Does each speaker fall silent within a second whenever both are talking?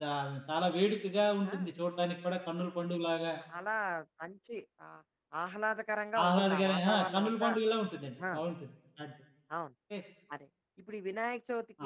No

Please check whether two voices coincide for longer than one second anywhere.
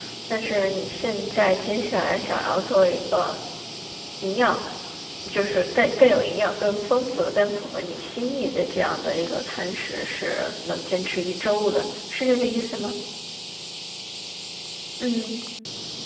No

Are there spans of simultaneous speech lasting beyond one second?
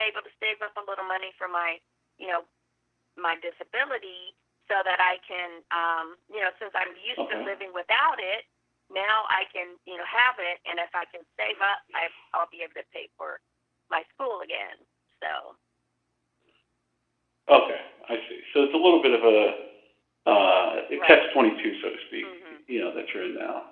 No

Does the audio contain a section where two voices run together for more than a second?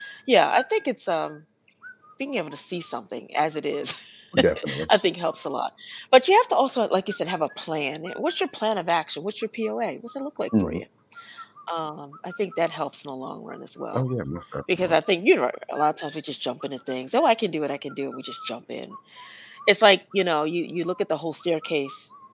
No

